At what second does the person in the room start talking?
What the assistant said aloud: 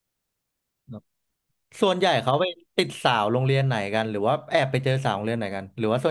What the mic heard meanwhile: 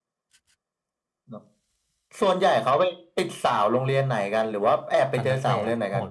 5.1 s

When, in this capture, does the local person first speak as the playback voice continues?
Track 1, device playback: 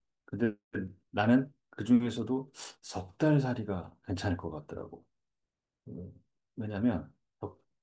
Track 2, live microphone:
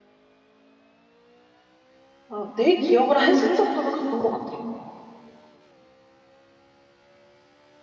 2.3 s

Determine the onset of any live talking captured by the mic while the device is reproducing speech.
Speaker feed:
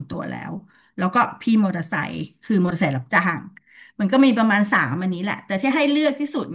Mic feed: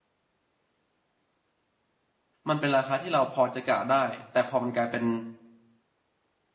2.5 s

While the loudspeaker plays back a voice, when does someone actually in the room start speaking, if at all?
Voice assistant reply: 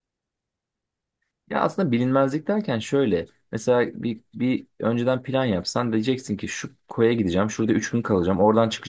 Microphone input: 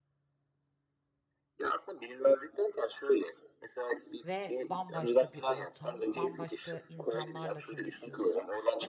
4.2 s

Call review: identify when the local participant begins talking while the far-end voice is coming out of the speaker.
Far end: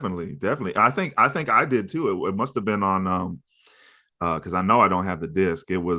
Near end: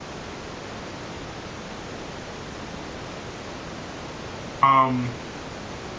4.6 s

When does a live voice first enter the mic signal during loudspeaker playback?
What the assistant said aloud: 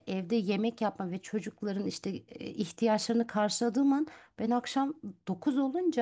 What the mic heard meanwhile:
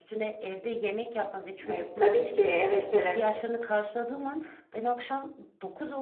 1.7 s

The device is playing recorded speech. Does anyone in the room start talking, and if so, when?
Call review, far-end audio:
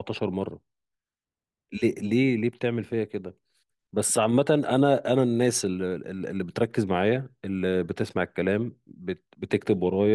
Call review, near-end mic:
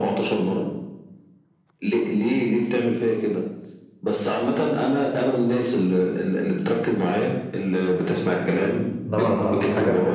9.1 s

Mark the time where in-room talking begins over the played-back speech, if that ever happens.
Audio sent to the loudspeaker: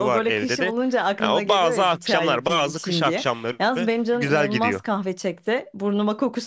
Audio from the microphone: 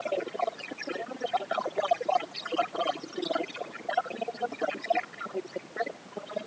none

